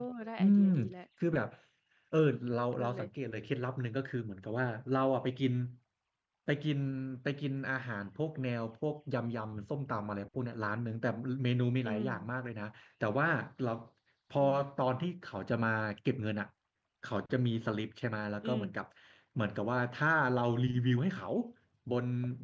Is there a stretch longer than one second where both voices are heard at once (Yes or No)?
No